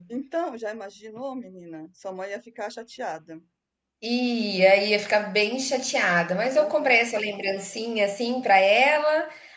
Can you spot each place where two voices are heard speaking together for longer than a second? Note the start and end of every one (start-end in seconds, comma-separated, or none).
none